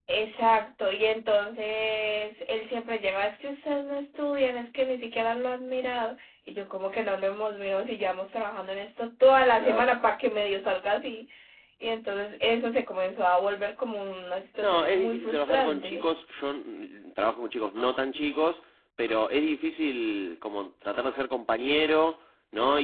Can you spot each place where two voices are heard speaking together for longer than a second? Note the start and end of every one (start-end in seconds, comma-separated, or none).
14.6-16.1